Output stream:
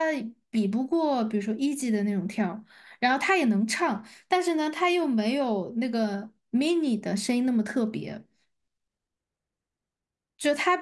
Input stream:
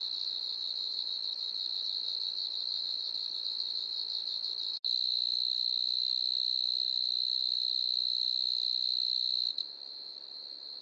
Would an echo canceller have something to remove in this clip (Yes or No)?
No